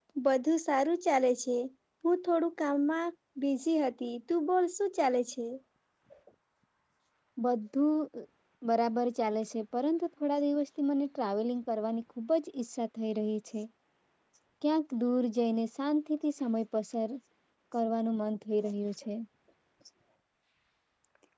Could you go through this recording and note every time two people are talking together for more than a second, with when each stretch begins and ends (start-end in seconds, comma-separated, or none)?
none